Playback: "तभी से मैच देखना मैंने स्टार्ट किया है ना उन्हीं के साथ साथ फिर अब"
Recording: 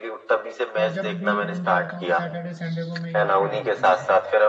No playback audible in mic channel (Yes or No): No